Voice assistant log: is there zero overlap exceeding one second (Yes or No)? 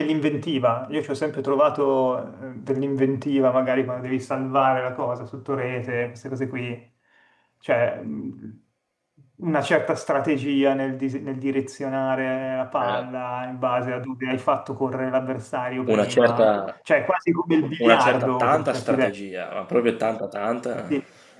No